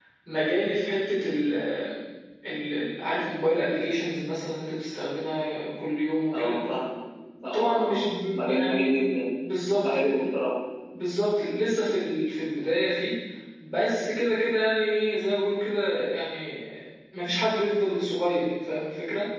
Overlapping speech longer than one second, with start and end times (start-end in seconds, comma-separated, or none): 7.5-8.9